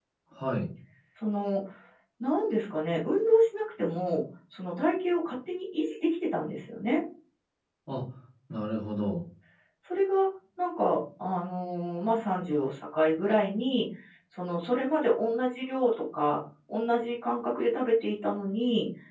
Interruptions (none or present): none